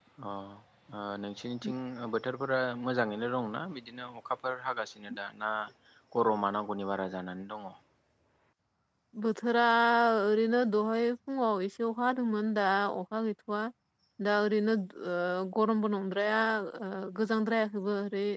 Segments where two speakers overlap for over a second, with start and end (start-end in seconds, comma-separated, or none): none